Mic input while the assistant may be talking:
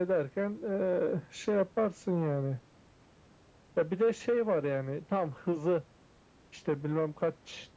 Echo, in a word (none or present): present